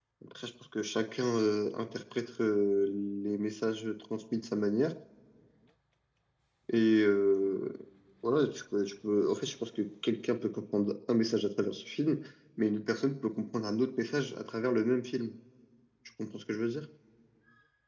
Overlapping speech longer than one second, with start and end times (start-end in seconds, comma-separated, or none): none